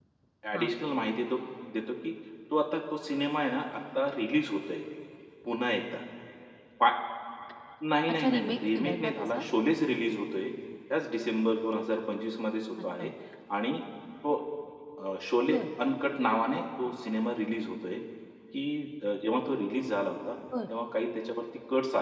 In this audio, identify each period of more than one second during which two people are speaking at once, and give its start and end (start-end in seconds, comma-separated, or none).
8.1-9.4